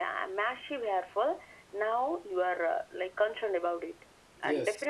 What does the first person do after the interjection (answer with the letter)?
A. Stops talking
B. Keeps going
B